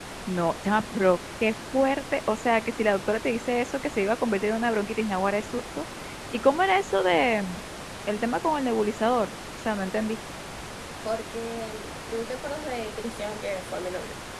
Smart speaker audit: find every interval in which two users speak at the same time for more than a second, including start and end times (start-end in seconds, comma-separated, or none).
none